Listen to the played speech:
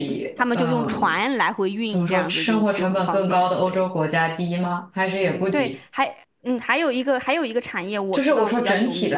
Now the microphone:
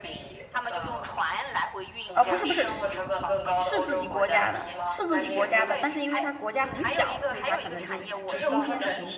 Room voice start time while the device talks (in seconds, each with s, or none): 2.1 s